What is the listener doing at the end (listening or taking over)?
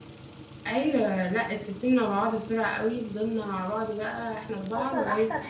taking over